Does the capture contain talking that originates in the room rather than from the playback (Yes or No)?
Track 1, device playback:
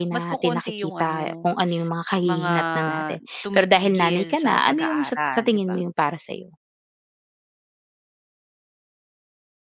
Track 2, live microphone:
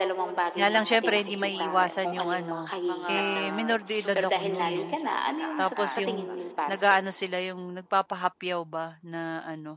Yes